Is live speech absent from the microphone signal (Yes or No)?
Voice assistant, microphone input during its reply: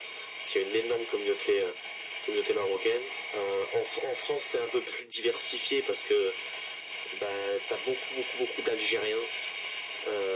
Yes